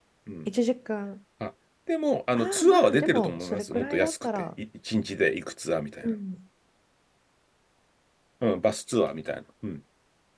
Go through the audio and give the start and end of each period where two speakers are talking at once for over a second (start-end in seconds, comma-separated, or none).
2.4-4.4